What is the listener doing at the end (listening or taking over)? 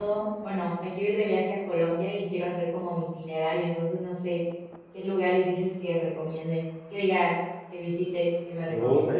taking over